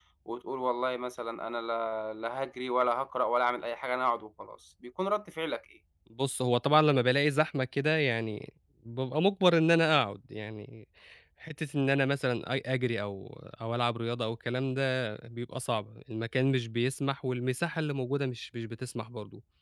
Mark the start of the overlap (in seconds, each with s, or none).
none